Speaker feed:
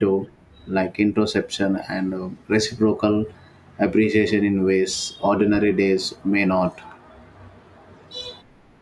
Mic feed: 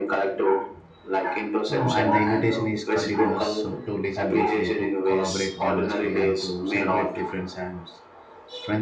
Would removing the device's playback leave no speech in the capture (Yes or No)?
No